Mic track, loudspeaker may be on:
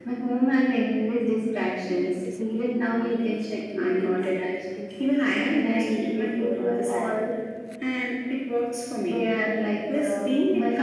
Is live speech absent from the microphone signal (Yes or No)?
No